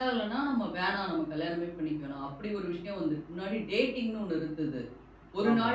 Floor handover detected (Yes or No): No